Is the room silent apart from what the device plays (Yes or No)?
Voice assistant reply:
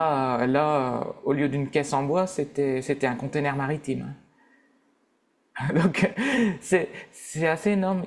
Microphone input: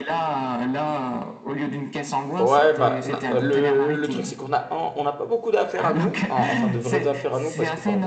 No